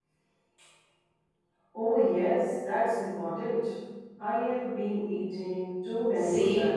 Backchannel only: No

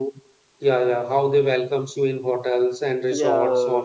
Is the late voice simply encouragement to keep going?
Yes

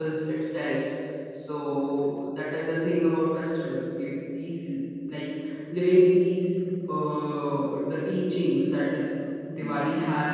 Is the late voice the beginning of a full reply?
No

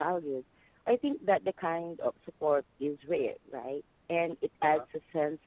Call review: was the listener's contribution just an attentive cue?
Yes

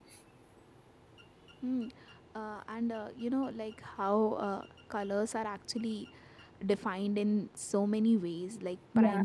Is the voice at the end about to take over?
No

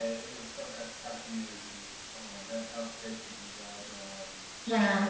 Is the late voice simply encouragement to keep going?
No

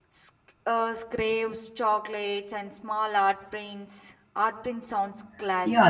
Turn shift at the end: Yes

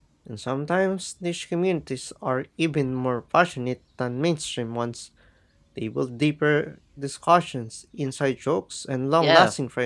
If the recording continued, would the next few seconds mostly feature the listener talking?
Yes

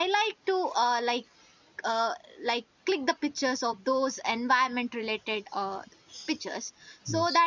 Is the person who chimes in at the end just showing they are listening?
Yes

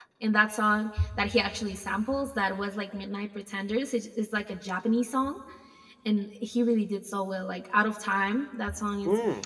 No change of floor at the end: No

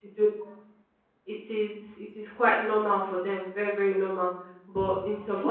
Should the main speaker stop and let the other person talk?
Yes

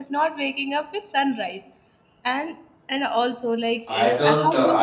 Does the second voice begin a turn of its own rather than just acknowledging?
Yes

